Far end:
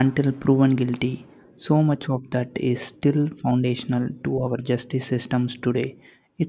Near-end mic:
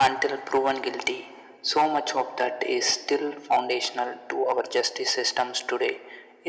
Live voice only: none

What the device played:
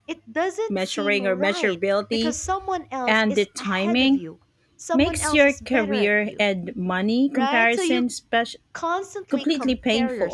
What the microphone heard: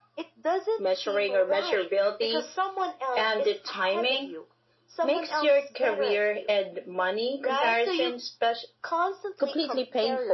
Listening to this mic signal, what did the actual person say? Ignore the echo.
none

